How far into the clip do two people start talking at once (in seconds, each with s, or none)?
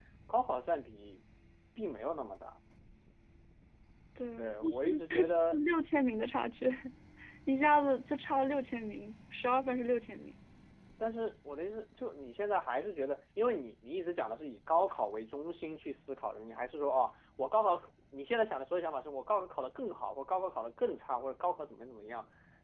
4.4 s